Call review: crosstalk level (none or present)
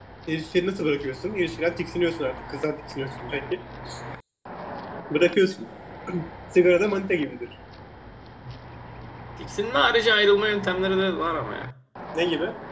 none